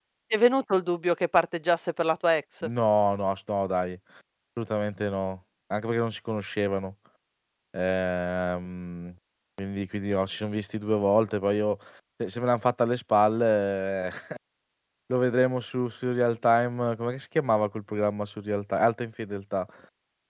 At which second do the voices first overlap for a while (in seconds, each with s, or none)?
none